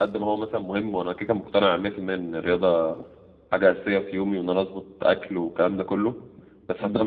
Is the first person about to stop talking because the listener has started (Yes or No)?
No